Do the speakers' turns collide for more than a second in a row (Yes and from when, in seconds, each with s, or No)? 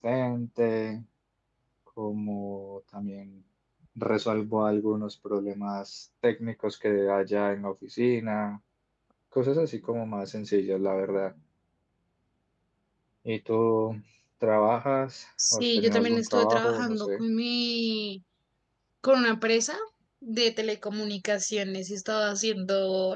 Yes, from 15.4 s